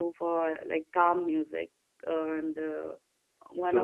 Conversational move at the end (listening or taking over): taking over